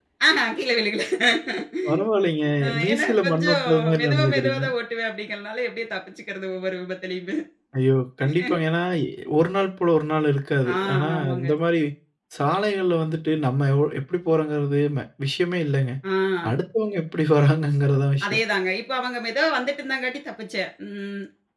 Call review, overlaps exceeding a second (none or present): present